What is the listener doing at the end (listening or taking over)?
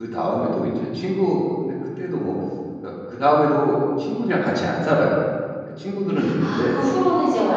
taking over